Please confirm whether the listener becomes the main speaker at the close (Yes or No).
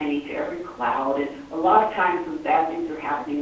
No